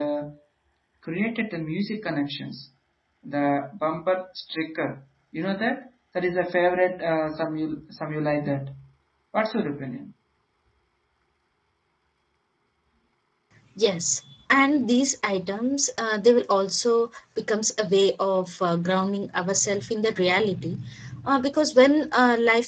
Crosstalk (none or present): none